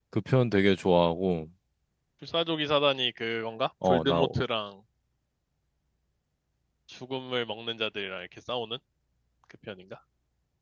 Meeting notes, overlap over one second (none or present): none